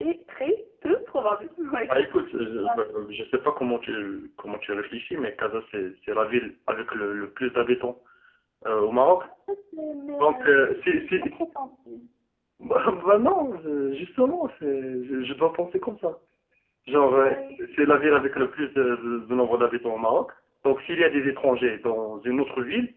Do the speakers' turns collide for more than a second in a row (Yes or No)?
Yes